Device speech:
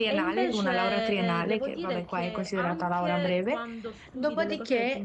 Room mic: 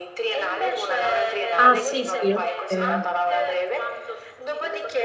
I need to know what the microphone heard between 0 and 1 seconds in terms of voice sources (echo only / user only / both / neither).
echo only